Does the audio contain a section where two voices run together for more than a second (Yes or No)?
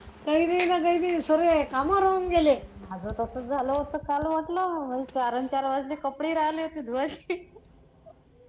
No